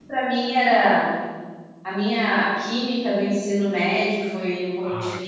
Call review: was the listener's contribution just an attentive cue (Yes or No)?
No